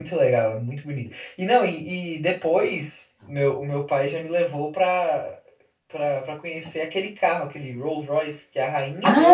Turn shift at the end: Yes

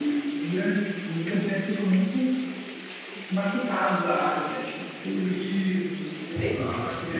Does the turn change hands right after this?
No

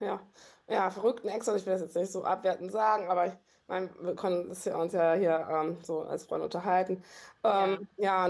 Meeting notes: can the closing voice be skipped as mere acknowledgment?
Yes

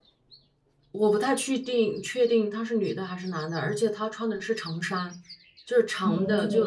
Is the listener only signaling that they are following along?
No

